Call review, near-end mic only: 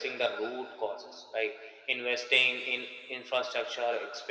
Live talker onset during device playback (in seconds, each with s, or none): none